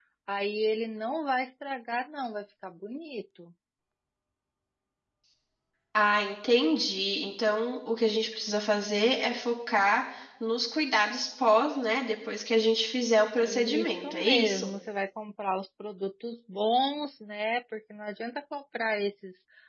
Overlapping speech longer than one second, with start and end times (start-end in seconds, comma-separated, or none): 13.4-14.7